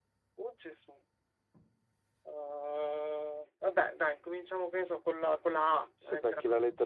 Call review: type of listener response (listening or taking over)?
taking over